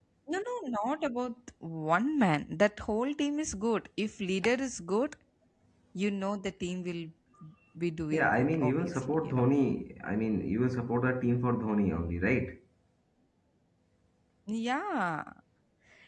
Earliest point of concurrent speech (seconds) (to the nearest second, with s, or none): 8 s